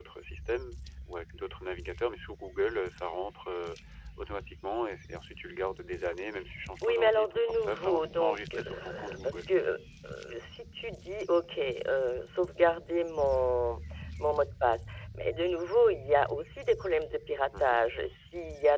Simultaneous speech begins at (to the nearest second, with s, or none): 7 s